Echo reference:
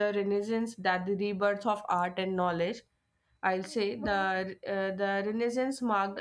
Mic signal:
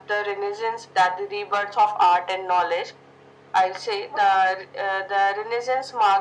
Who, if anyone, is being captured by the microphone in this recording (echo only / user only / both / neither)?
echo only